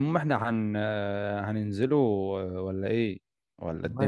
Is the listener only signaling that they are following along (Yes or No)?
No